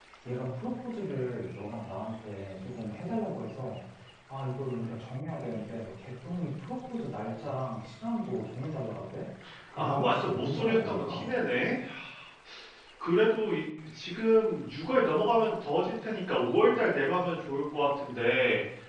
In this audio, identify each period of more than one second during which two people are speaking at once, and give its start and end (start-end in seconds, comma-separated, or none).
9.8-11.3